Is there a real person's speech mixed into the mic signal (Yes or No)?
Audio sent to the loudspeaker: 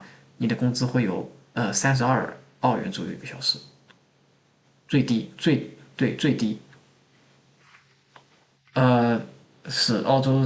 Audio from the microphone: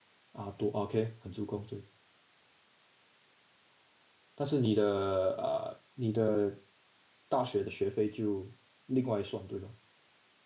Yes